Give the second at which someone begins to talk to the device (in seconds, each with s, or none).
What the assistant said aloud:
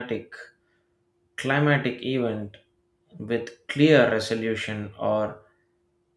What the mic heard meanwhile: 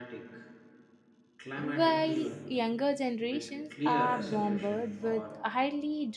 1.5 s